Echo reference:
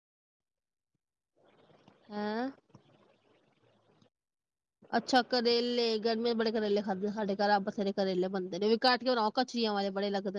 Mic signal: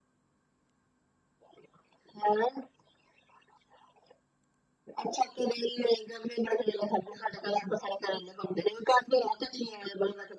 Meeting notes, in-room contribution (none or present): none